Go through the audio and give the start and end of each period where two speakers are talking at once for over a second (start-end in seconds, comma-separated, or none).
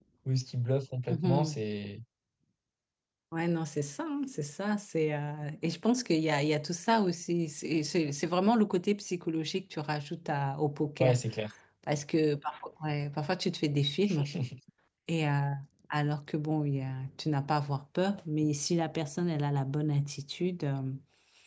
none